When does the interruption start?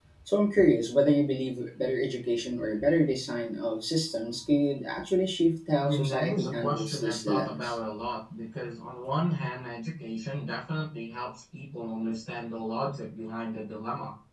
5.8 s

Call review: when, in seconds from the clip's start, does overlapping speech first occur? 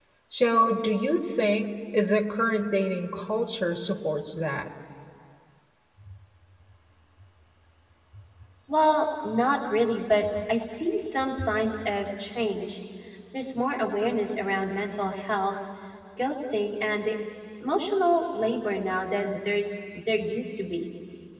none

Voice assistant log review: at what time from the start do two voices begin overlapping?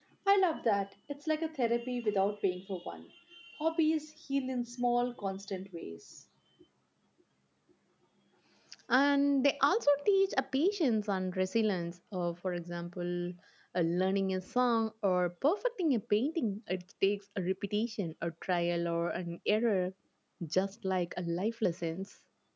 none

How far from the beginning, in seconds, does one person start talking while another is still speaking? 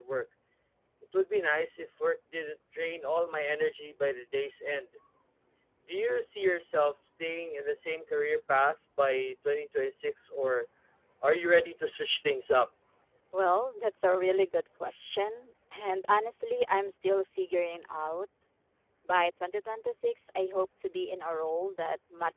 none

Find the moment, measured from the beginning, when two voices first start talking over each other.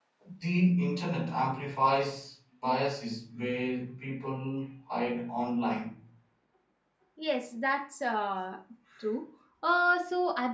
none

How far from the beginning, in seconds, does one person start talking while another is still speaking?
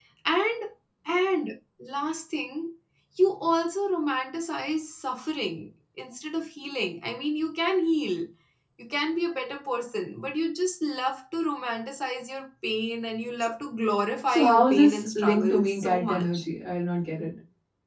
14.3 s

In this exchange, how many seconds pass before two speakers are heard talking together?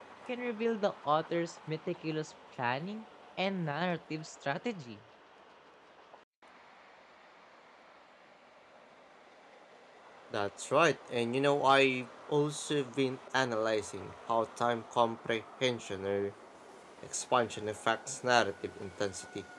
none

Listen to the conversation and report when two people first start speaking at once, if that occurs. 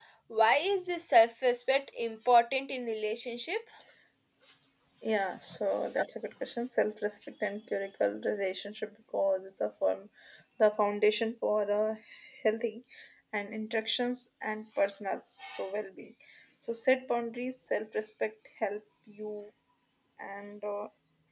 none

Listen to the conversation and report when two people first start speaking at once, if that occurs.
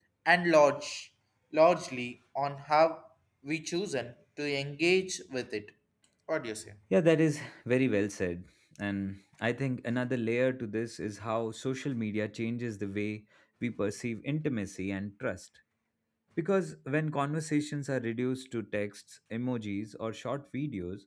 none

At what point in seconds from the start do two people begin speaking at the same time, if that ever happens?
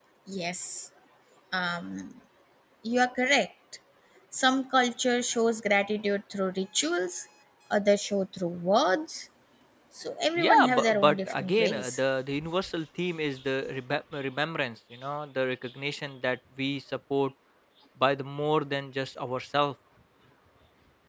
10.5 s

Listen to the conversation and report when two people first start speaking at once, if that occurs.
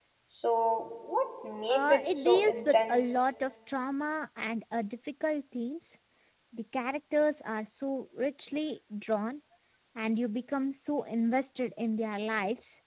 1.7 s

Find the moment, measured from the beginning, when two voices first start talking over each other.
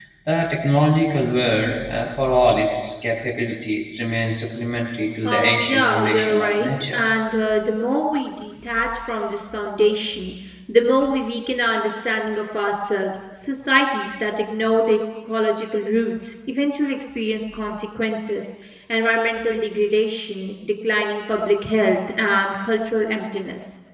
5.2 s

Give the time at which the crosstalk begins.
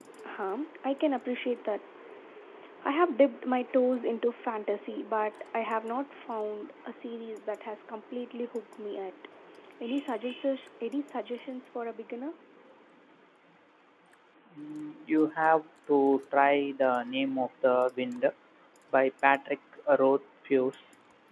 none

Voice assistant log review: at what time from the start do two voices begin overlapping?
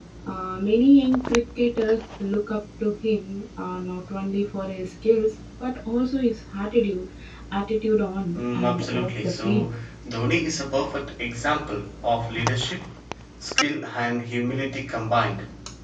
8.3 s

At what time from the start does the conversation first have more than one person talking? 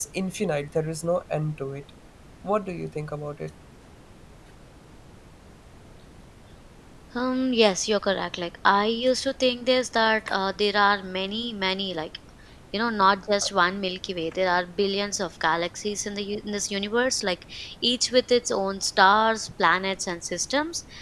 none

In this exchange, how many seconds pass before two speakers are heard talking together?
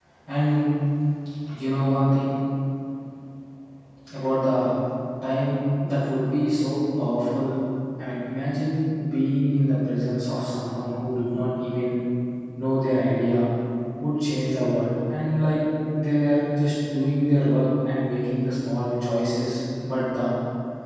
none

